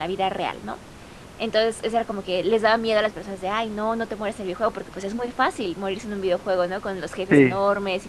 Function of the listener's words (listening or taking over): listening